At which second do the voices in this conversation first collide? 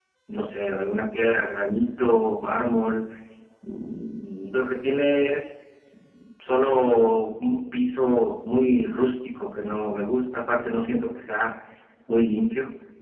none

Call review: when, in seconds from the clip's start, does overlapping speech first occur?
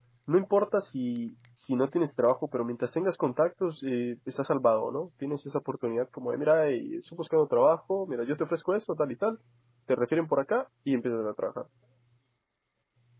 none

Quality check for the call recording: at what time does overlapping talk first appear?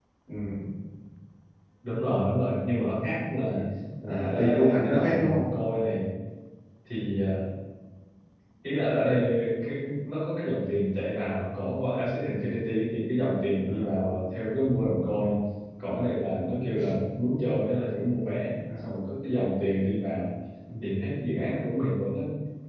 4.0 s

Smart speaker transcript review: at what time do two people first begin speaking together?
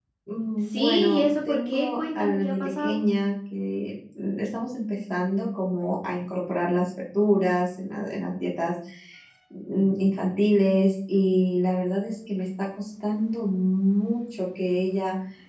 0.7 s

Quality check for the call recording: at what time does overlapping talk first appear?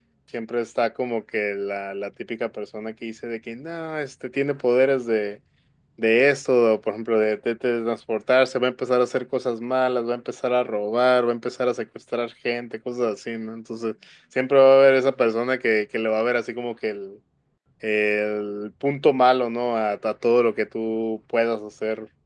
none

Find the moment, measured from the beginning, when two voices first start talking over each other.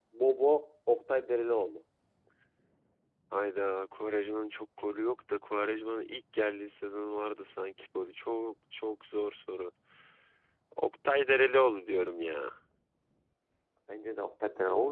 none

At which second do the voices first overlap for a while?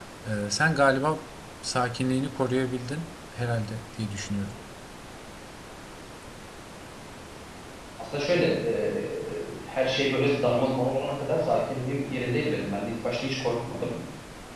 none

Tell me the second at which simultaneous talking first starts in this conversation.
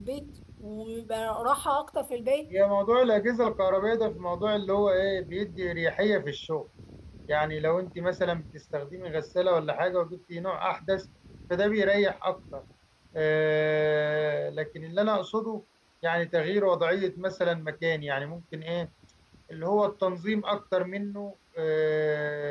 none

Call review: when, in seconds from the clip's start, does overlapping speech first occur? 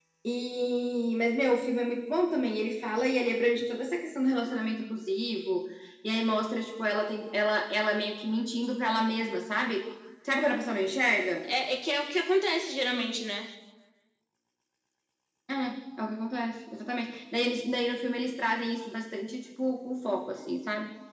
none

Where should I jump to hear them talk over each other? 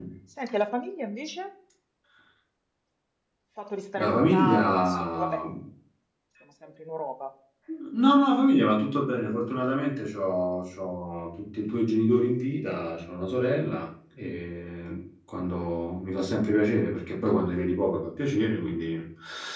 4.0 s

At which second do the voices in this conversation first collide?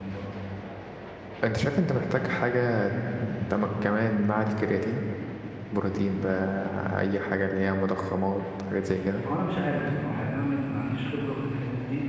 none

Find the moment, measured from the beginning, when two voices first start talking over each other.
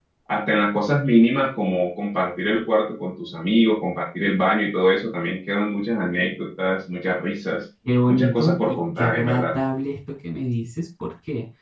8.1 s

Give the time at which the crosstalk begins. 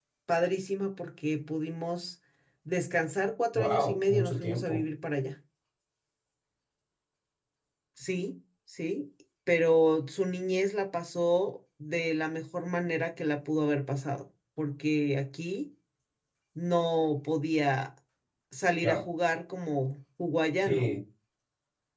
3.5 s

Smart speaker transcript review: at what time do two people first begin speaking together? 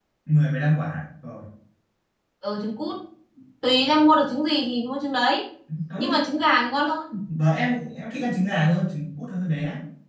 none

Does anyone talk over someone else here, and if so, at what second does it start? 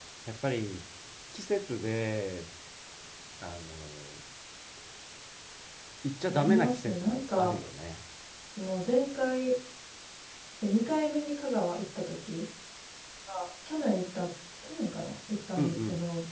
6.3 s

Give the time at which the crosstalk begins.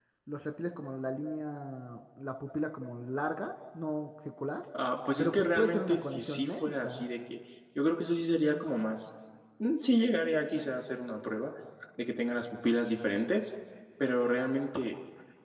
5.2 s

